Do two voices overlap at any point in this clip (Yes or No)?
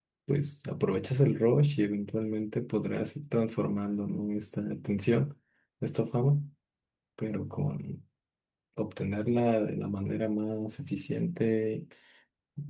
No